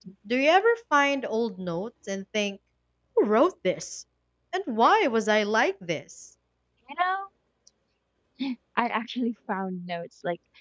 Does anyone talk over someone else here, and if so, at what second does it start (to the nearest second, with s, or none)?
none